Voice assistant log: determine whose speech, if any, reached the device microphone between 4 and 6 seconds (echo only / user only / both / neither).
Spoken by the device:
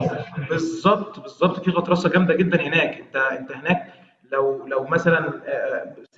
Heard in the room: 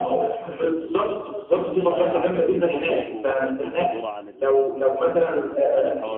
both